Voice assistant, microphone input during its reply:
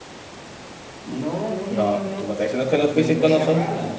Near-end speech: present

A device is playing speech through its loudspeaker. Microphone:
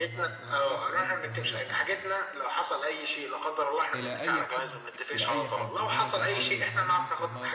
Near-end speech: present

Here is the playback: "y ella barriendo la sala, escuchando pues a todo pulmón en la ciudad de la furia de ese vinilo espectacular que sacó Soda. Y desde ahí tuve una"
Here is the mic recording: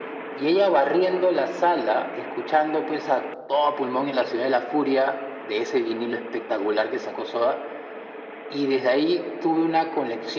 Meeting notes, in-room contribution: none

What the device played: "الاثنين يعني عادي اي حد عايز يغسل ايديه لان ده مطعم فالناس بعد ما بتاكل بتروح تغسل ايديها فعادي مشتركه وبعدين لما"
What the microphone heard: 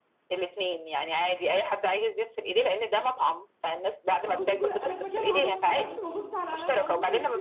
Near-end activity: present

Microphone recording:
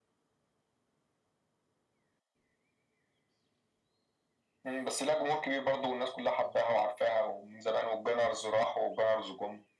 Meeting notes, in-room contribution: none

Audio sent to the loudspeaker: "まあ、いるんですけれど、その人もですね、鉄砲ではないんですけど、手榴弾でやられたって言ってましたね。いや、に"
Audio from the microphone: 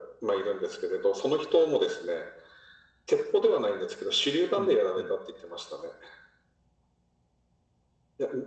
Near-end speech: present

